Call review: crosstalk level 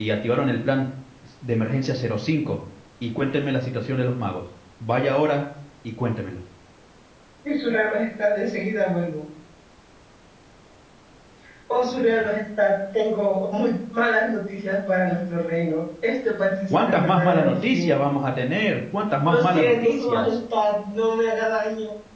present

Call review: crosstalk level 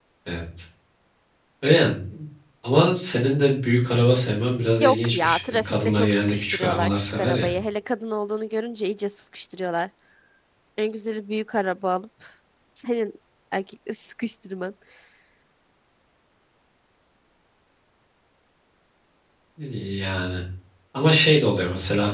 present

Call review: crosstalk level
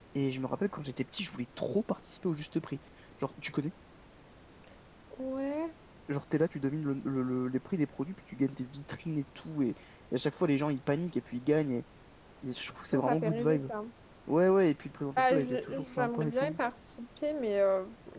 present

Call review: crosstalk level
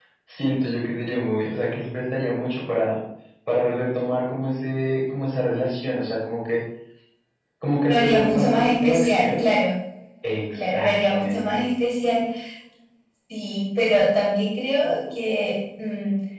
present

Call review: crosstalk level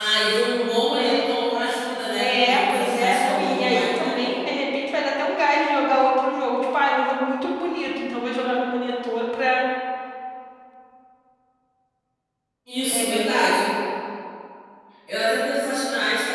present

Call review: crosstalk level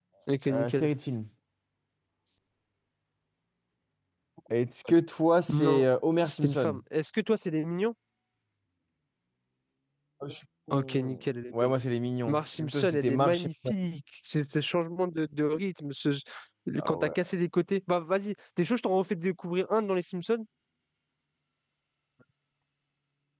present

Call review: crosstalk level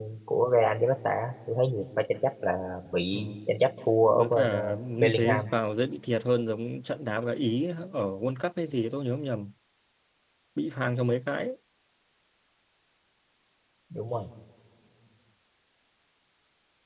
present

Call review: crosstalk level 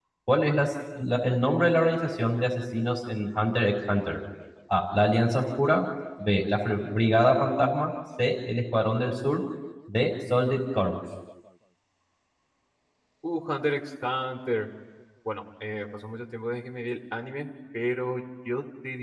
none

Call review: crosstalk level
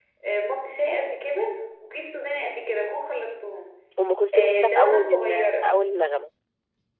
present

